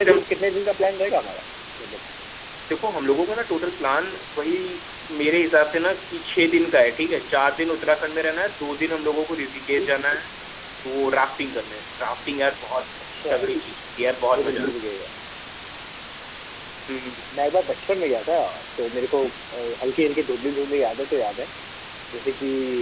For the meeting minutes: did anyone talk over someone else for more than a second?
No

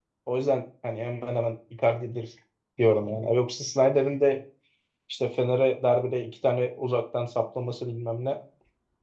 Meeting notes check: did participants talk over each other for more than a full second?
No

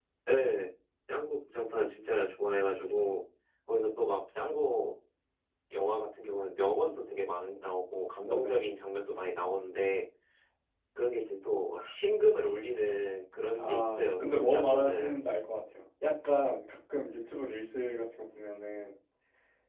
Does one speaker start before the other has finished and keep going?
Yes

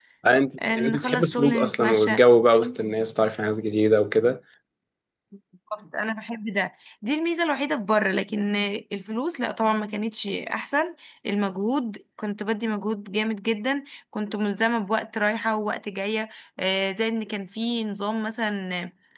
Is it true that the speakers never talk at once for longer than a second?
No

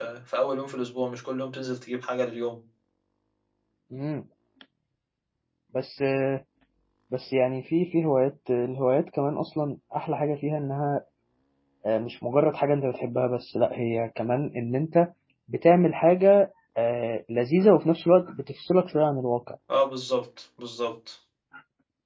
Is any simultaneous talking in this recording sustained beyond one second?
No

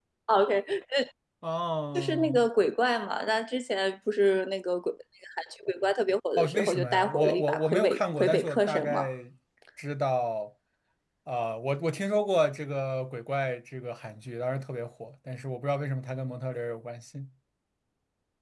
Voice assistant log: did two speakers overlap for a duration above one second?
Yes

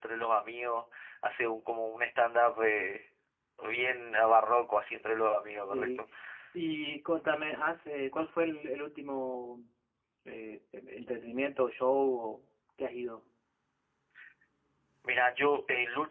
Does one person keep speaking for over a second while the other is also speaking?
No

